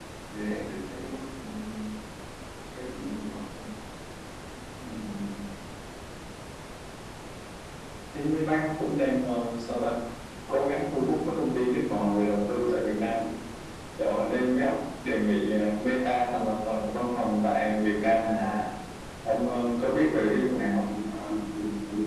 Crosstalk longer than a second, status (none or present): none